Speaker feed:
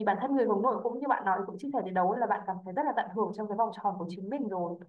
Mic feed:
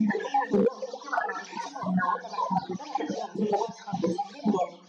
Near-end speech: none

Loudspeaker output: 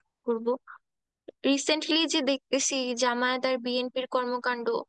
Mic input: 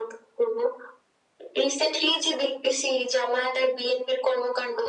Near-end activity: none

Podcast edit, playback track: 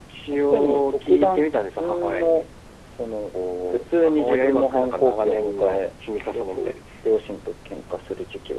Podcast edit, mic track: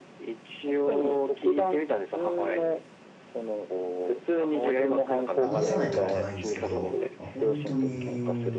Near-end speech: present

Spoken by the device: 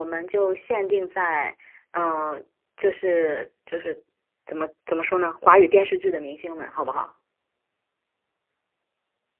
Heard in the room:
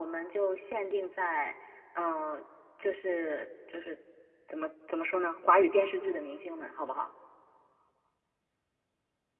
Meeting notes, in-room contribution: none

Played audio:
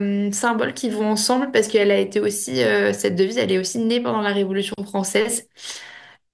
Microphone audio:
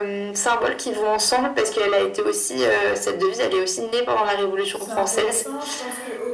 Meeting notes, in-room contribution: present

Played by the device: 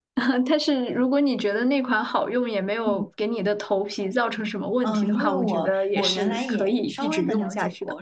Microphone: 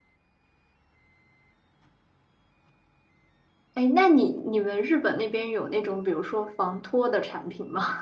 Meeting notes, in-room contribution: present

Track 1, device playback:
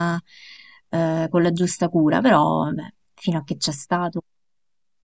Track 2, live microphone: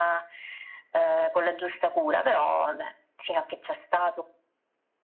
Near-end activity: none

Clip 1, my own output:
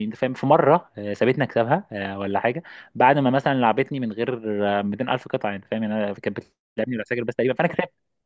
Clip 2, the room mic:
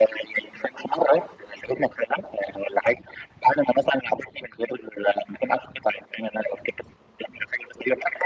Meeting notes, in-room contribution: none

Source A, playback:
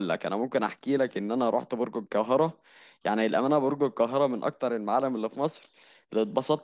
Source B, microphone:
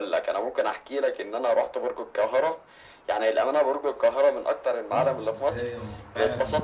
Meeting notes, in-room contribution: present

